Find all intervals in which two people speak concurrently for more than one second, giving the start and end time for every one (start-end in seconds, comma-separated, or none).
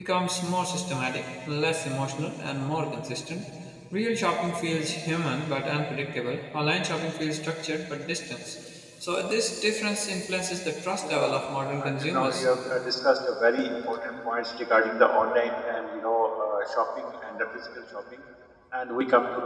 11.1-12.5